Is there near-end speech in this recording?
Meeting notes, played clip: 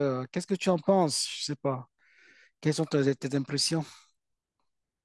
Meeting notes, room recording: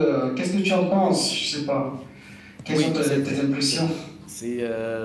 Yes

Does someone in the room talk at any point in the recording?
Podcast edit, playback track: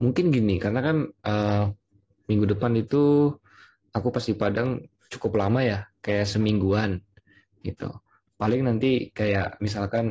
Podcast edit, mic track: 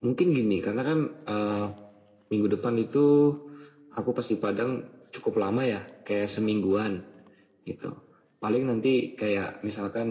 No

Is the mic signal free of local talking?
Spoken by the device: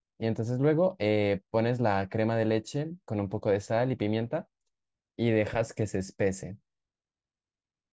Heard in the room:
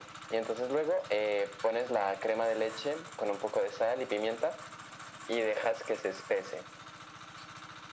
Yes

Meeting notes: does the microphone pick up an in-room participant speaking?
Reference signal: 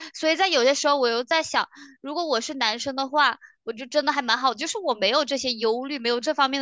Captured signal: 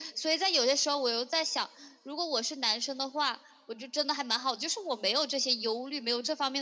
No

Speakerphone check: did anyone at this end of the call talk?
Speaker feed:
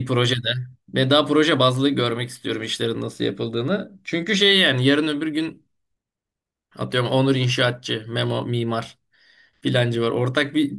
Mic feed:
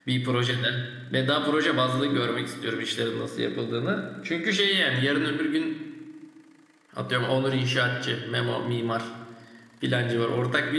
No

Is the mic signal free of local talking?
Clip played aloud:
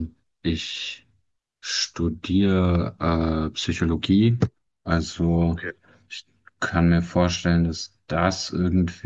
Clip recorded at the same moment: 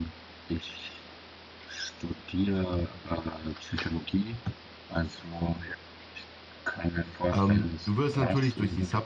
No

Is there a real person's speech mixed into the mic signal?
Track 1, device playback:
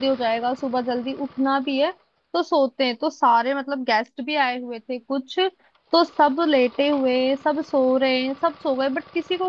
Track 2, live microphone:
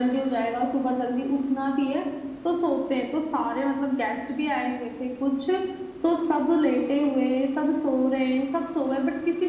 No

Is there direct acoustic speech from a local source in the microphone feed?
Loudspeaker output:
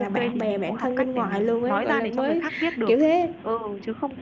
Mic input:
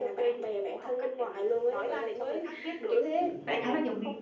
Yes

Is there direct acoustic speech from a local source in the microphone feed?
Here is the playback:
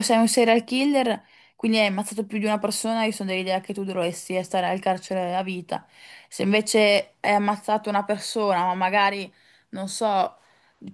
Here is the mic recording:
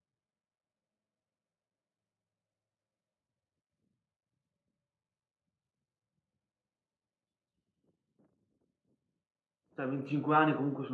Yes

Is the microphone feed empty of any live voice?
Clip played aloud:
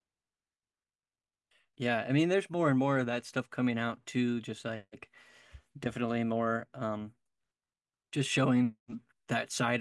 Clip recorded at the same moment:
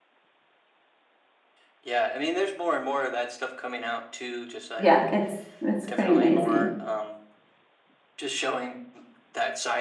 No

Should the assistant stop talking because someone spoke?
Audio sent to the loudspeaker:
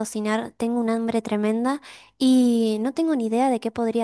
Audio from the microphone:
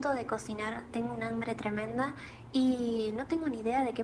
No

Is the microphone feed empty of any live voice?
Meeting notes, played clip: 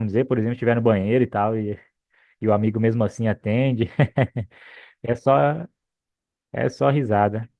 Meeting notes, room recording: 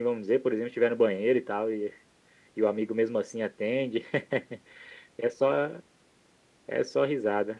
Yes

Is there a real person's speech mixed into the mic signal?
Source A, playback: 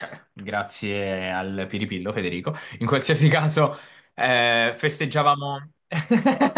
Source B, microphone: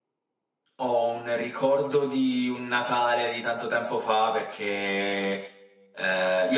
Yes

